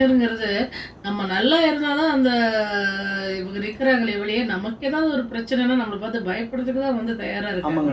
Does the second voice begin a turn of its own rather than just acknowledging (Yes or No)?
Yes